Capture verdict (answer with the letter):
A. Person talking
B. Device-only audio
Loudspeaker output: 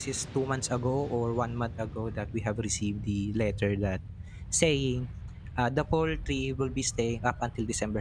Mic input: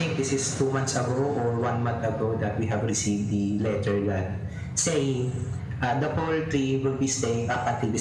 B